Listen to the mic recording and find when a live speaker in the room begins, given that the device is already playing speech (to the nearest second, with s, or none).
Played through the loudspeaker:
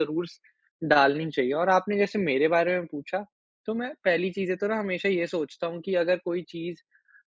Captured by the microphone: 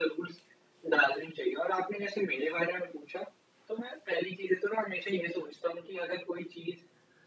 none